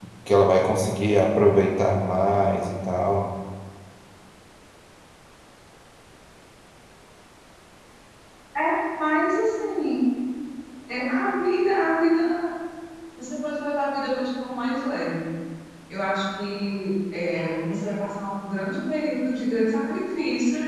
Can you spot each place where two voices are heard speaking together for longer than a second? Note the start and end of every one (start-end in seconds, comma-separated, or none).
none